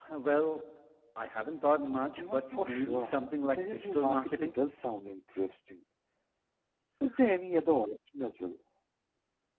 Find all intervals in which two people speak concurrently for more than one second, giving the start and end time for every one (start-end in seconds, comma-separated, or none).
2.2-4.5